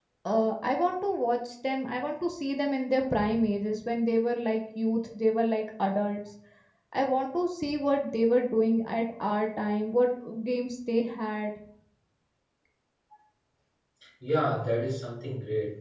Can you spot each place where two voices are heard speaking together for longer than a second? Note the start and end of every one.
none

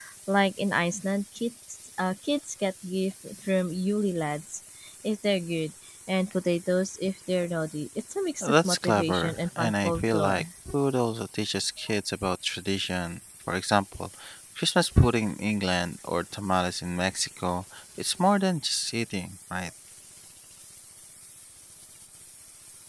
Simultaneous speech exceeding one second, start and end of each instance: 8.4-10.4

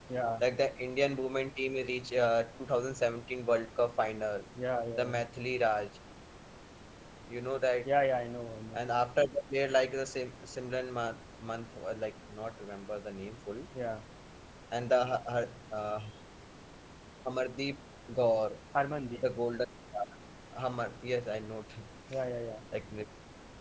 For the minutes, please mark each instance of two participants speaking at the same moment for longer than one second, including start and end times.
none

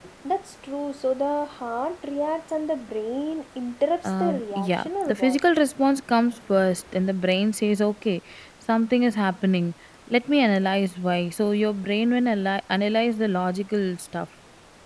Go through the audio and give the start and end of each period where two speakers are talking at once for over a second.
4.0-5.4

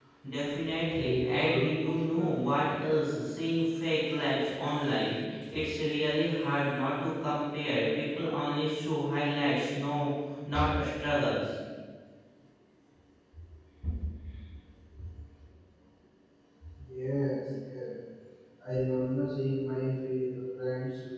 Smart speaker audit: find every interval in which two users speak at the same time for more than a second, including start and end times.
0.9-2.3

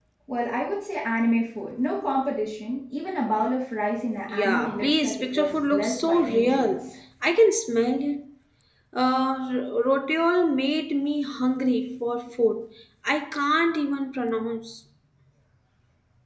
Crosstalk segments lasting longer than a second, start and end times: 4.3-7.0

